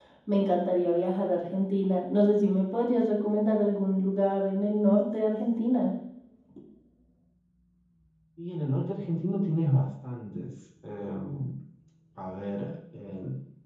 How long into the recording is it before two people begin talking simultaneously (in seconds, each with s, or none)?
none